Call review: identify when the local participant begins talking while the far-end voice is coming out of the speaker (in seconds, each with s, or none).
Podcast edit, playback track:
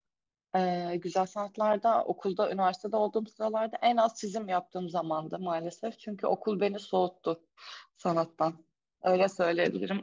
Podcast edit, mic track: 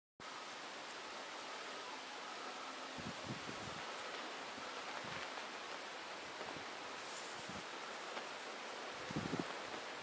none